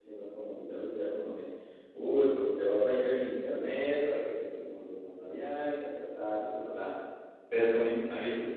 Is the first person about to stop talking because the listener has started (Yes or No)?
No